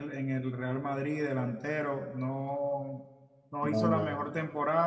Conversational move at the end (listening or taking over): listening